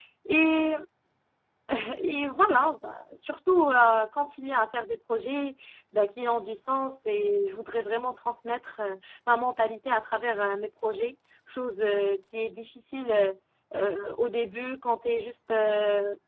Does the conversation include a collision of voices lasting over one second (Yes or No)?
No